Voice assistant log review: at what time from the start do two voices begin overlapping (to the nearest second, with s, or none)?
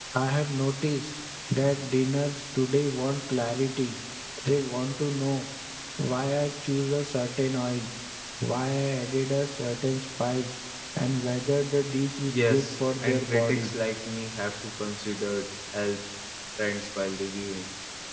12 s